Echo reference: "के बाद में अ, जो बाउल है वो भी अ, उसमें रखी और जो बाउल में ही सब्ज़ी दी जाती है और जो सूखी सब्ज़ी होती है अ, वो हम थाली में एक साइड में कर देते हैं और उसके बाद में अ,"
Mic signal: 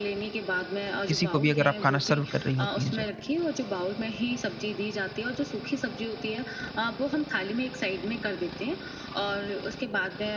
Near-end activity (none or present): present